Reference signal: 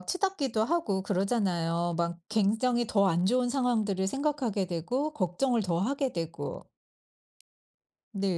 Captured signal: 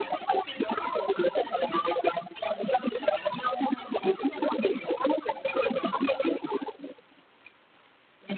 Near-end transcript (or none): none